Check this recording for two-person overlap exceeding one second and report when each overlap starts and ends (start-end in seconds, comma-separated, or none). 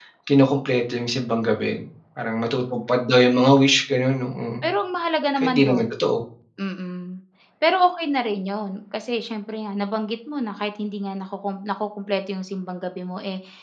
none